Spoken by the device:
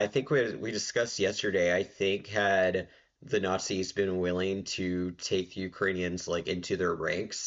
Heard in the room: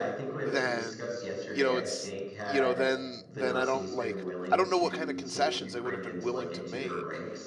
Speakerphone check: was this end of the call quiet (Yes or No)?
No